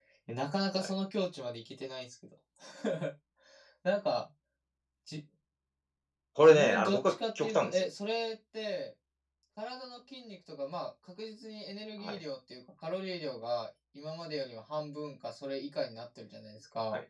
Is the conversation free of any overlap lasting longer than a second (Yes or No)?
No